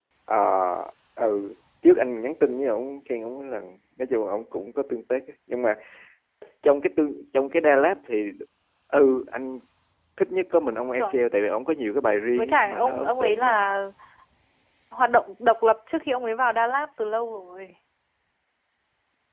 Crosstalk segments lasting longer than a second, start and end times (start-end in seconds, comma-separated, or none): 12.3-13.6